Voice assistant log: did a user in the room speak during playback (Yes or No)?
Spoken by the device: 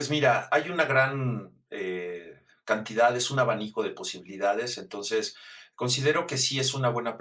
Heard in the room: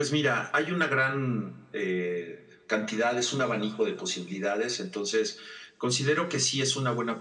No